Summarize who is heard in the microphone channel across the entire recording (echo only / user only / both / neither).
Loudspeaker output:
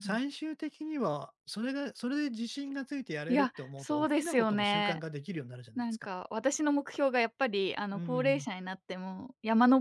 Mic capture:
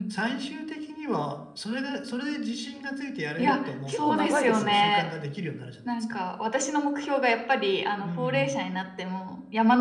both